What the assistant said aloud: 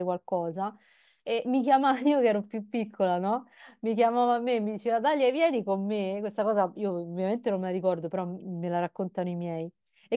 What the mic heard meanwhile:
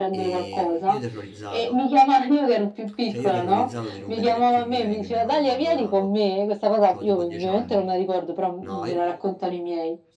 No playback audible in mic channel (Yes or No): No